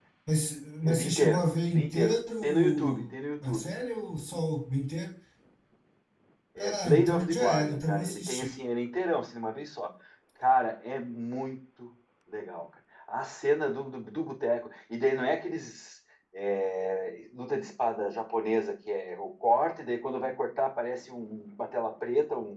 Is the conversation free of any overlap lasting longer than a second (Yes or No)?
No